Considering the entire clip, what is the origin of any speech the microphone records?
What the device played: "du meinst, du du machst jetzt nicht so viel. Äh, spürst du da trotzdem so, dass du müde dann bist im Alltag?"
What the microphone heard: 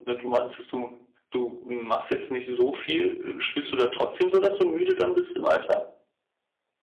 echo only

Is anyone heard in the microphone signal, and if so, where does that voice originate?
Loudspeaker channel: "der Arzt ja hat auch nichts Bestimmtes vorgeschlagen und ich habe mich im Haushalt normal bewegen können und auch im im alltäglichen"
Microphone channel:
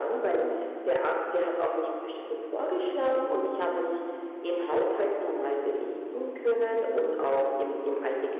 echo only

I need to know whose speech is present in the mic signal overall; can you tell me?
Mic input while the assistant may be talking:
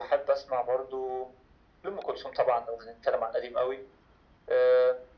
echo only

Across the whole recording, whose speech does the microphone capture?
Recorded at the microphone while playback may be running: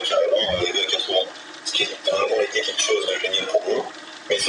echo only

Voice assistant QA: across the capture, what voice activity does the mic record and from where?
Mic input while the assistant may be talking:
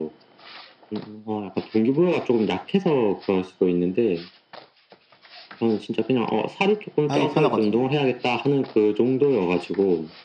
both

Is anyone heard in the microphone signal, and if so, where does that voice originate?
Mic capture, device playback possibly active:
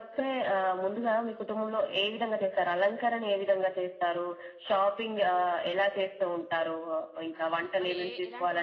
both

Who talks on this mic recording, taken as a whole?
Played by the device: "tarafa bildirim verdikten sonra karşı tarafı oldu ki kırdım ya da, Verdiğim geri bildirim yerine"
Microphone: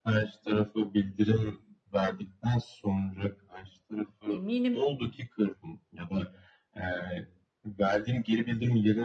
both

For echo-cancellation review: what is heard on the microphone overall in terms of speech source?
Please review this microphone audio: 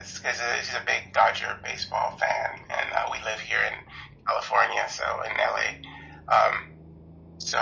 echo only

